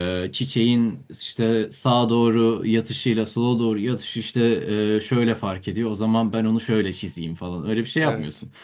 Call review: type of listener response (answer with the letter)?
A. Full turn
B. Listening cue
B